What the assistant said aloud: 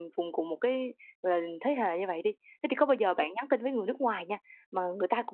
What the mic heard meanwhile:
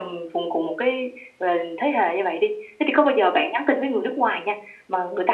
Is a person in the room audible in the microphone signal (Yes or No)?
No